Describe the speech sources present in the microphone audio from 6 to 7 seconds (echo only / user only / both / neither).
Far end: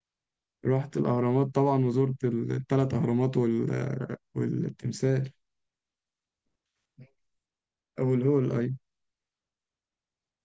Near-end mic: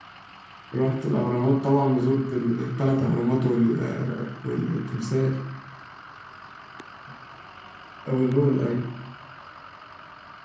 neither